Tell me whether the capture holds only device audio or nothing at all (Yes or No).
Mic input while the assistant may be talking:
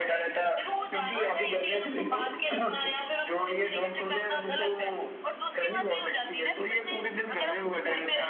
Yes